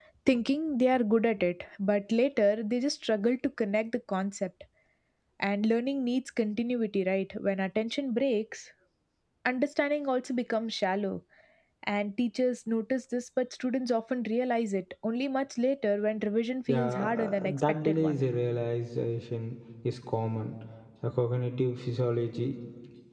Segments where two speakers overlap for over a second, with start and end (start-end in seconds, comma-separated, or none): 16.7-18.2